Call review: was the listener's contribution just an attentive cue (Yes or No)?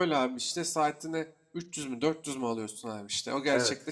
Yes